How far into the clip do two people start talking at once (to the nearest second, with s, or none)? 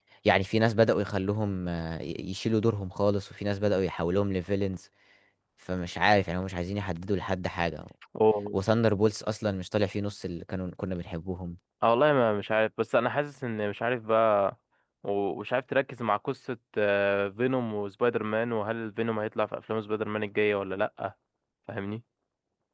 none